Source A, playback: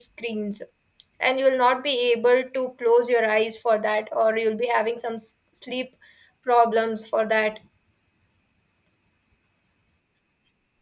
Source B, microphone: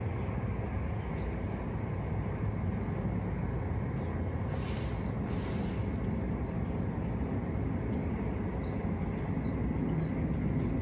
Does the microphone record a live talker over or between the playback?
No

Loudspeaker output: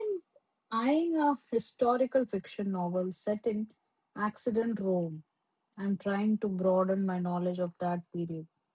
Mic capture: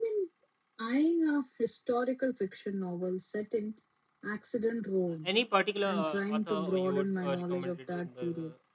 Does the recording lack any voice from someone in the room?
No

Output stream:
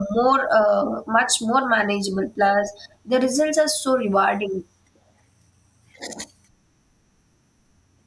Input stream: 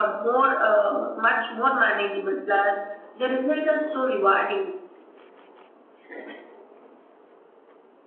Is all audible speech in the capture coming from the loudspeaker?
Yes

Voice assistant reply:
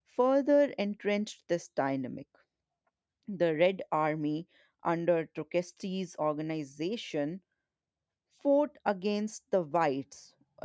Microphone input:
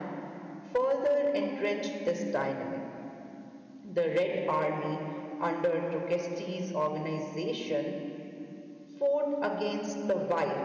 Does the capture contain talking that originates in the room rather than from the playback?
No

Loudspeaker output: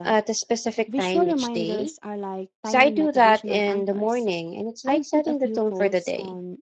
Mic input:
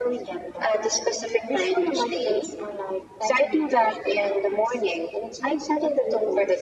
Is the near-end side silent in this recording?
Yes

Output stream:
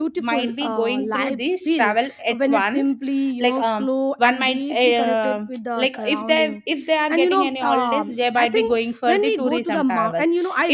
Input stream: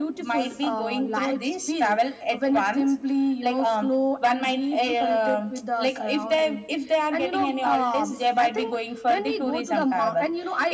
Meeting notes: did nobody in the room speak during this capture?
Yes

